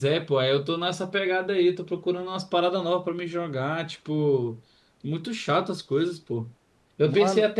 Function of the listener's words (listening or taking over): listening